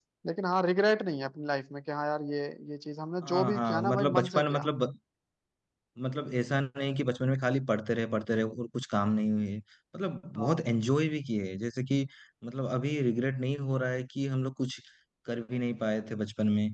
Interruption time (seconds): 3 s

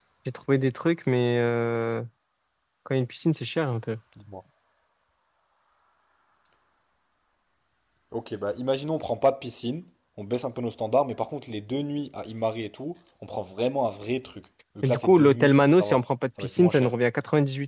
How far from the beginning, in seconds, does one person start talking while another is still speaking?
15 s

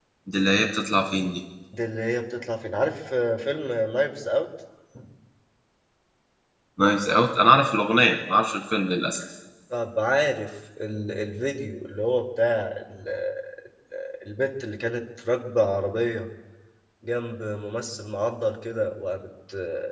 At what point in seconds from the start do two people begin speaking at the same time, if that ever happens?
none

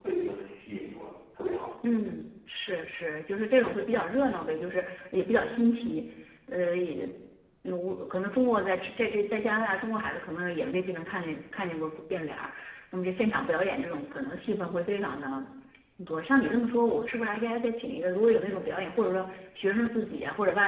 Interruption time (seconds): none

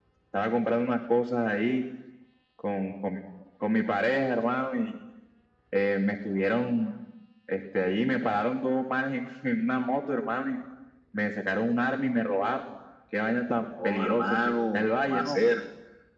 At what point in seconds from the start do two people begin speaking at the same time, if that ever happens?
14 s

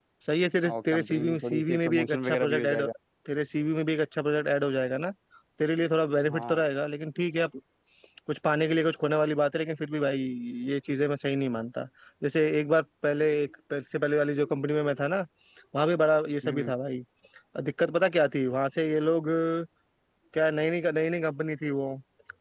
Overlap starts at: 1 s

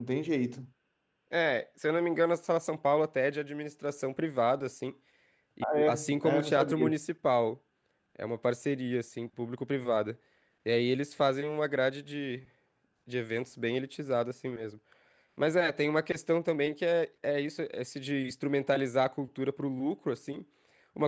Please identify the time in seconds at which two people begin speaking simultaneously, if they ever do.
6 s

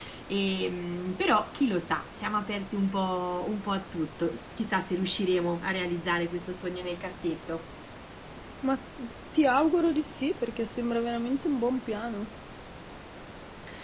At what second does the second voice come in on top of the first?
none

